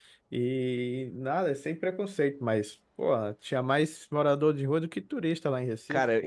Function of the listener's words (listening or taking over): taking over